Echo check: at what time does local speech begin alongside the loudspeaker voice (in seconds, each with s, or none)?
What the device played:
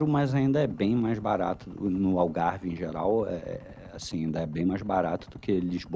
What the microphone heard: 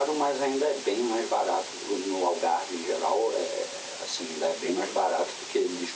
none